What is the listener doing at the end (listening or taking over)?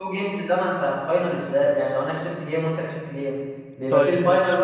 taking over